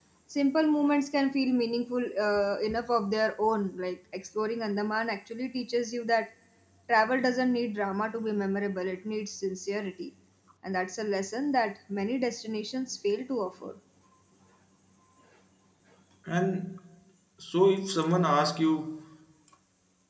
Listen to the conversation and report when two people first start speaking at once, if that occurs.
none

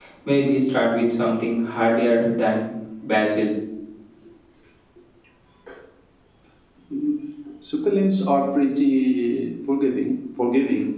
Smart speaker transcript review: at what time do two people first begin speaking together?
none

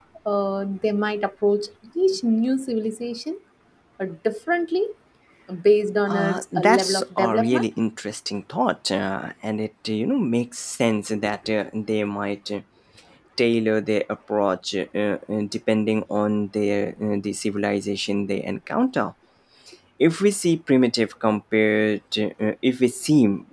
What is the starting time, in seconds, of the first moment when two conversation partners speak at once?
6.1 s

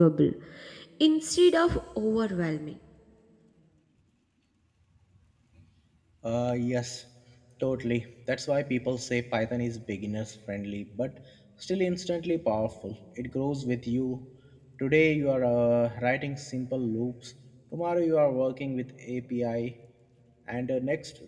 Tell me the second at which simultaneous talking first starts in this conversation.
none

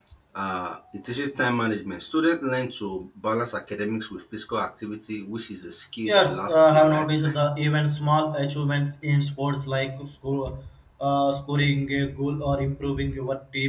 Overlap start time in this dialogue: 6.0 s

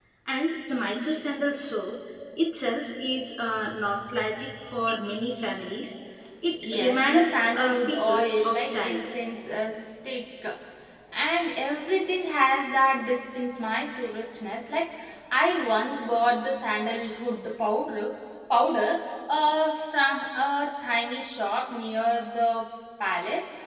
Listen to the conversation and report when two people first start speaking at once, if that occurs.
6.5 s

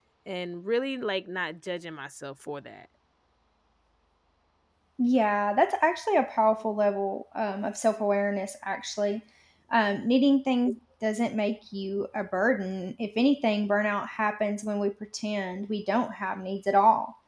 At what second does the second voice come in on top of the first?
none

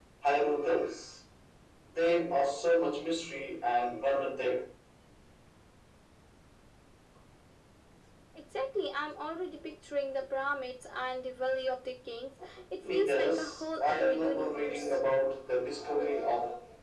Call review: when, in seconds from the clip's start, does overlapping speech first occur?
12.8 s

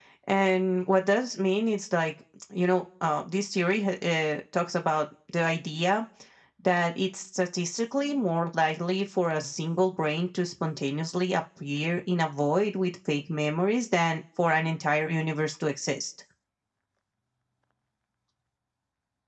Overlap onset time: none

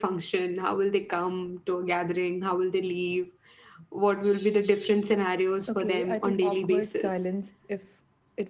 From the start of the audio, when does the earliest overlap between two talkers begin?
5.7 s

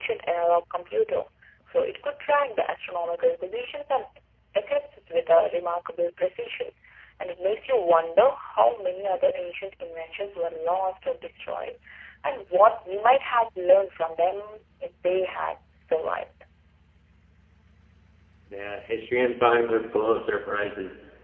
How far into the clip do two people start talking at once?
none

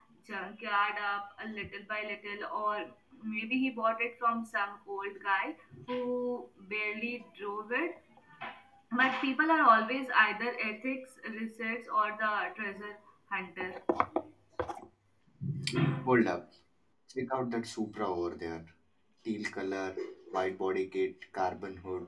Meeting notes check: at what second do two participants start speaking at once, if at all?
none

